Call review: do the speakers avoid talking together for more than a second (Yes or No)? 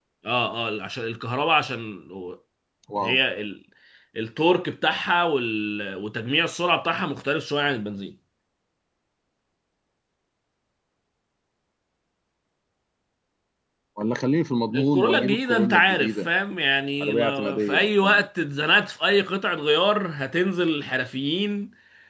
No